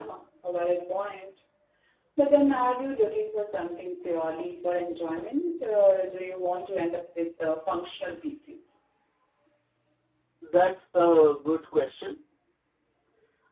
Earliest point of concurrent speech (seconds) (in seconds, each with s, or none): none